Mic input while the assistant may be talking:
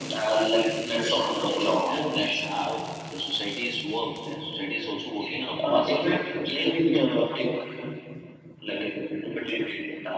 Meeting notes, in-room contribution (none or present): present